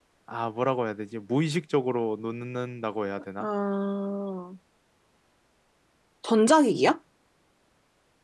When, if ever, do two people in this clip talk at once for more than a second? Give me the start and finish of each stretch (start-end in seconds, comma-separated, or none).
none